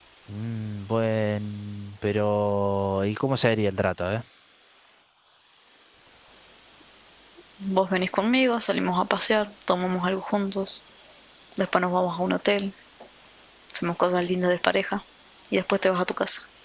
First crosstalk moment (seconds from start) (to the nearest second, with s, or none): none